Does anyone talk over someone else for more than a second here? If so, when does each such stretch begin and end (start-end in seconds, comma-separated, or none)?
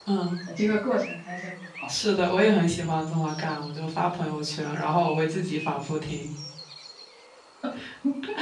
none